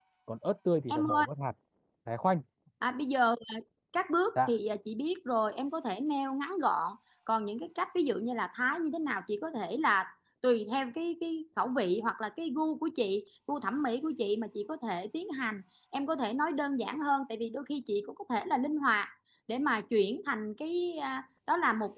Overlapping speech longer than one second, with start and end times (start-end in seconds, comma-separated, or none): none